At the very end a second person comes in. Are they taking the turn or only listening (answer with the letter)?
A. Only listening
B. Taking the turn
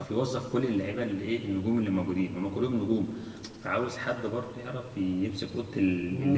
B